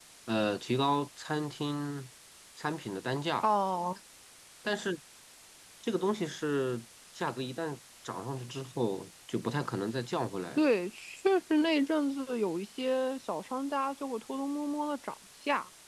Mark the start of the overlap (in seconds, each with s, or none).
none